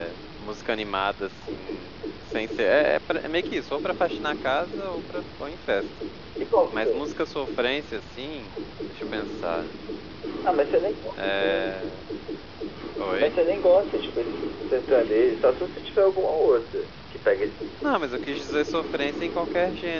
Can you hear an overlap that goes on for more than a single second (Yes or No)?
No